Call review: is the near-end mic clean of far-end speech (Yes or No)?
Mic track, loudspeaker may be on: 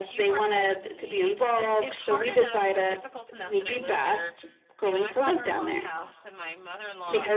No